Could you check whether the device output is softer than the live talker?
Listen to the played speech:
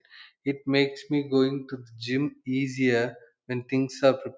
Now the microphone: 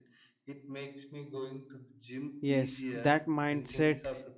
Yes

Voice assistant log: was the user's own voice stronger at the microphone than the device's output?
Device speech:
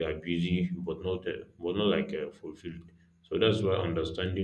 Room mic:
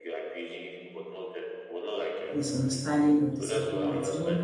Yes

